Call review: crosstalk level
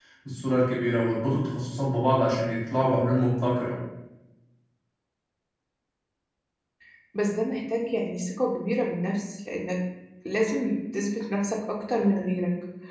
none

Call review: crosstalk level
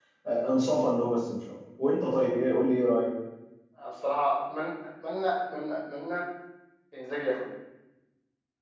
none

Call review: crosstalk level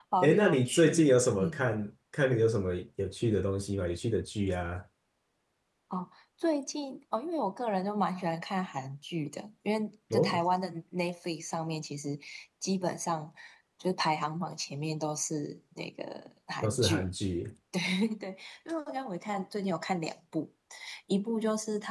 present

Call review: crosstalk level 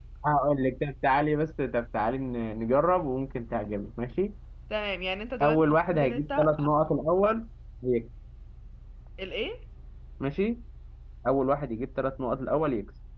present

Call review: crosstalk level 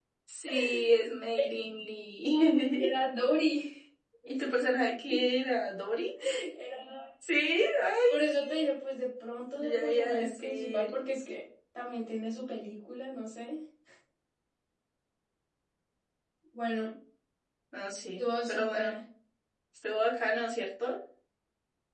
present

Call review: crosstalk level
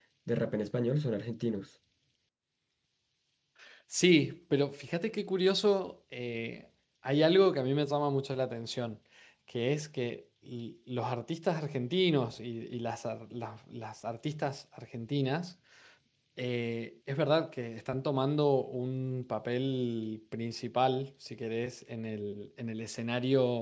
none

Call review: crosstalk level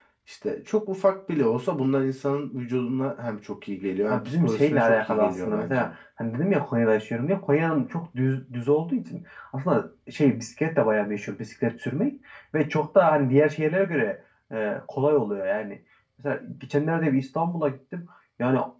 present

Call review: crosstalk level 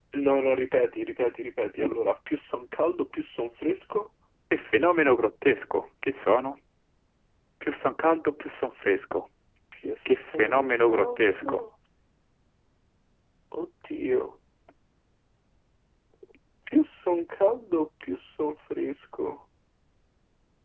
present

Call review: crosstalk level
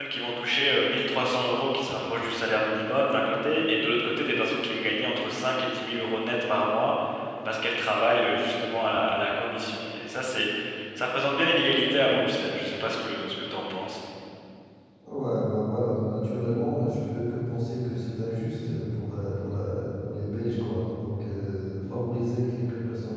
none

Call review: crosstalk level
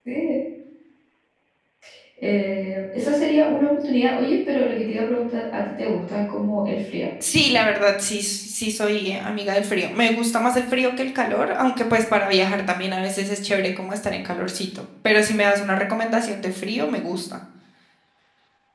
none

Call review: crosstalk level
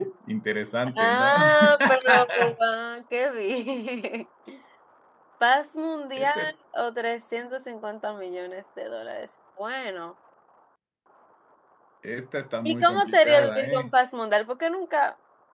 present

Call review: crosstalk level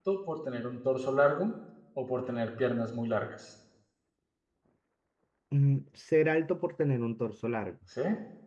none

